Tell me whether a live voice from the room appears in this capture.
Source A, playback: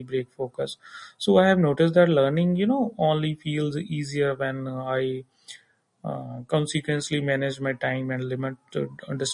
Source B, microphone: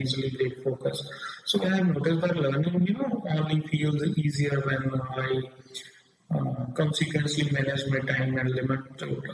No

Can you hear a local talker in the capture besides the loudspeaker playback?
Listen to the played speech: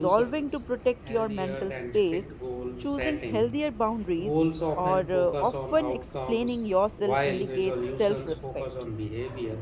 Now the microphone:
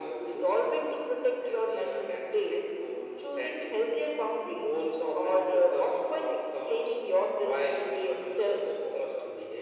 No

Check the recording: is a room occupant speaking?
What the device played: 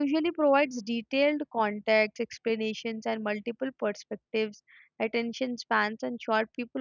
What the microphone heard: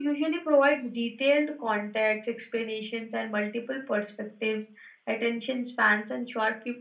No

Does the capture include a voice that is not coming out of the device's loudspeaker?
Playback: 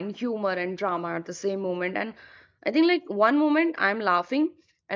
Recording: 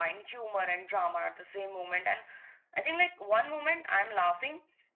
No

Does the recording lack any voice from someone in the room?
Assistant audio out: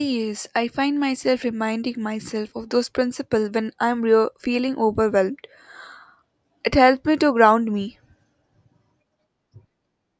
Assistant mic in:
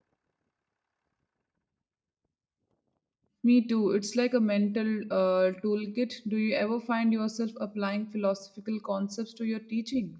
No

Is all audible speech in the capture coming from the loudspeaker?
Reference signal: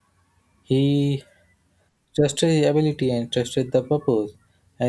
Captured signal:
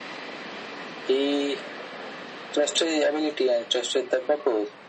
Yes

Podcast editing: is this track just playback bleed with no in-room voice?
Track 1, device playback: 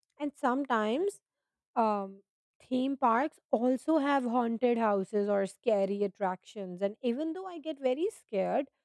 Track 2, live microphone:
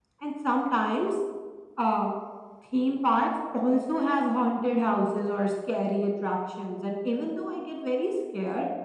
Yes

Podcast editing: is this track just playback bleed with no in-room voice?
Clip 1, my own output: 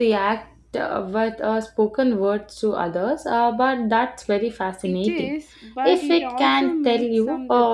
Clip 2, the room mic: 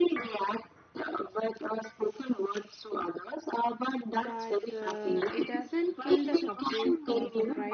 No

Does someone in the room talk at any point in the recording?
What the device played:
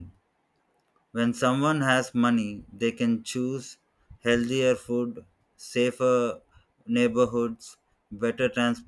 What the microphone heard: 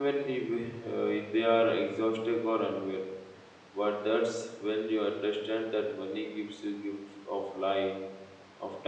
Yes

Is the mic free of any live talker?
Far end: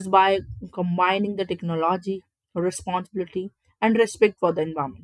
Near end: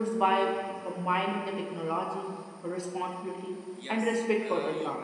No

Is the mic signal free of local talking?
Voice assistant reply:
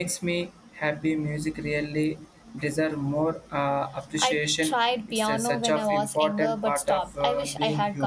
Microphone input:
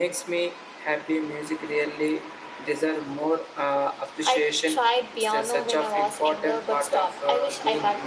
Yes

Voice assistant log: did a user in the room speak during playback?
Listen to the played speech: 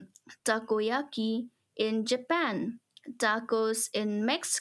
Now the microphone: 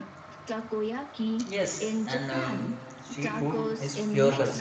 Yes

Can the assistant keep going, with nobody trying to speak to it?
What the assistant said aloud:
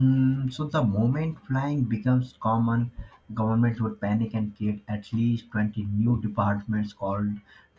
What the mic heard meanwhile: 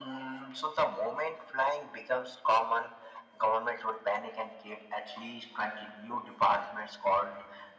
Yes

